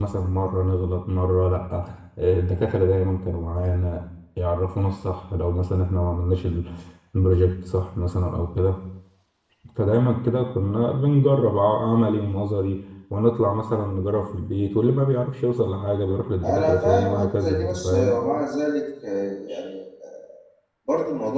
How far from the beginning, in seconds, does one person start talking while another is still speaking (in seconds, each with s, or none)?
16.4 s